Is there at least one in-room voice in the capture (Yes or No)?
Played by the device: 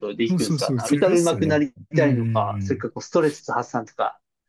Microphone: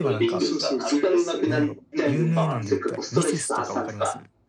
Yes